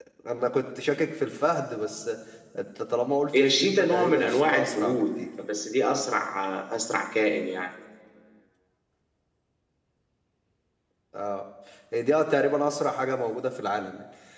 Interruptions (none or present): present